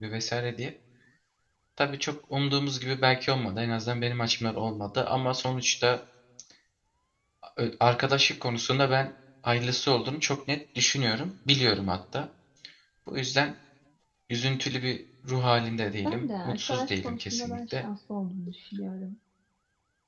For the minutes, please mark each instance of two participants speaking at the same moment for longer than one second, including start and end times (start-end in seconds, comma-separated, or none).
16.0-17.8